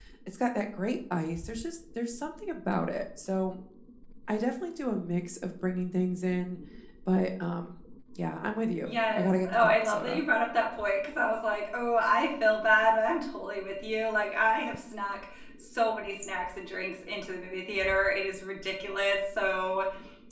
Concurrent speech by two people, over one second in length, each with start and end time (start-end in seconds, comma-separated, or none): 8.8-10.2